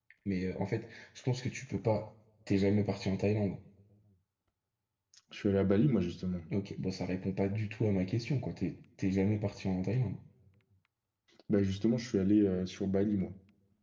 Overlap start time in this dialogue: none

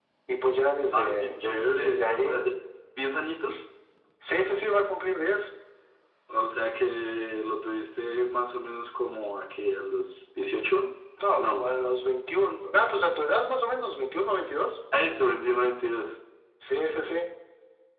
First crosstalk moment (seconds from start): 0.9 s

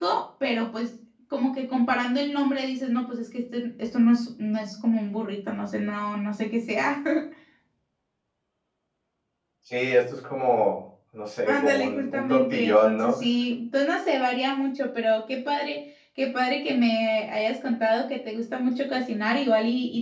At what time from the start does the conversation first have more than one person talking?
11.5 s

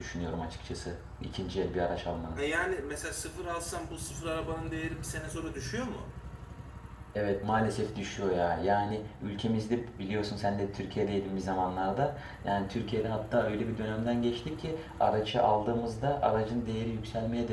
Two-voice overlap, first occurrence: none

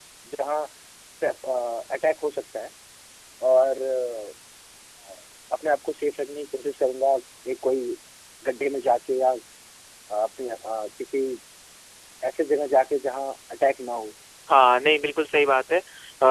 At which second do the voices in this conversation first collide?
none

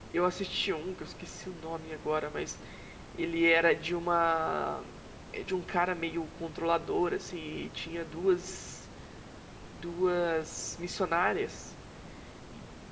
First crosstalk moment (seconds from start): none

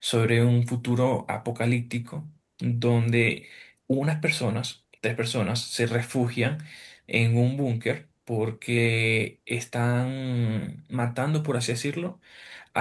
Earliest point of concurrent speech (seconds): none

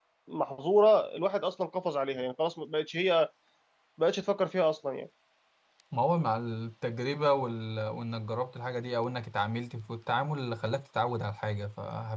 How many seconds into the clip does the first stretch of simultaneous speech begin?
none

